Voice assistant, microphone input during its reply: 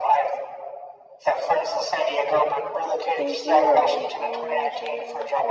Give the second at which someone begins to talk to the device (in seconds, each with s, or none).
3.2 s